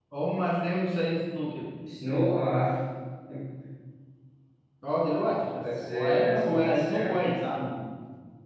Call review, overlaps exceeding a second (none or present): present